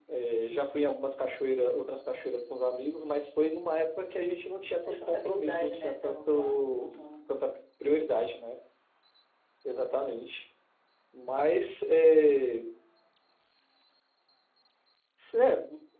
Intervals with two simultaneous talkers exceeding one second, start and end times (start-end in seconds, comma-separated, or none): 4.8-6.9